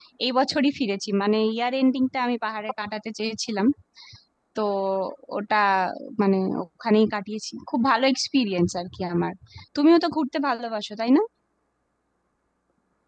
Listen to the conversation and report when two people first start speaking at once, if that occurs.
none

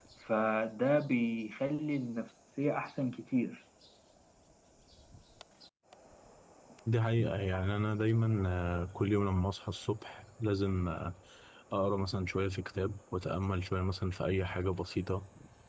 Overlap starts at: none

